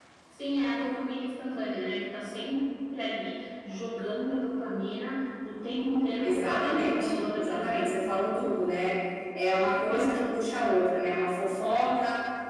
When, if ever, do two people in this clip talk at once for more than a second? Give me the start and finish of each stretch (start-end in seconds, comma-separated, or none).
6.2-8.0